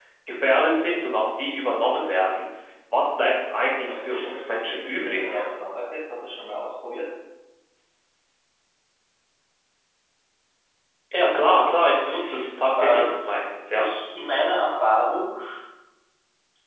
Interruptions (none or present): present